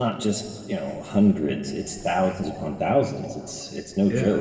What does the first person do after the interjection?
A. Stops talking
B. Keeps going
B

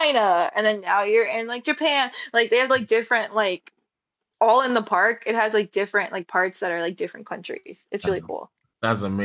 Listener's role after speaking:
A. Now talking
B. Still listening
A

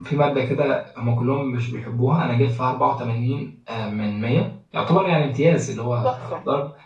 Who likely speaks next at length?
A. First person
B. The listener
A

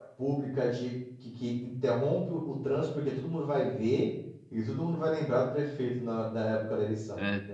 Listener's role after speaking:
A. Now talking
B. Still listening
A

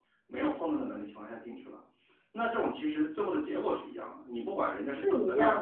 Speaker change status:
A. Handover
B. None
A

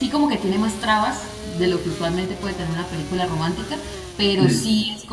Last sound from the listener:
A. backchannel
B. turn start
A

